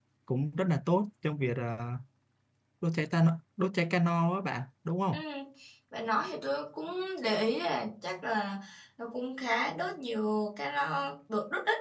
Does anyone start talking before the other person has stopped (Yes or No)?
No